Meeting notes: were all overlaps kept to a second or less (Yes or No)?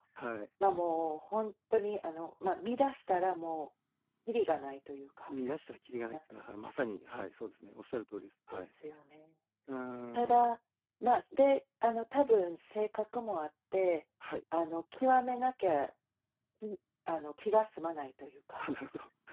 Yes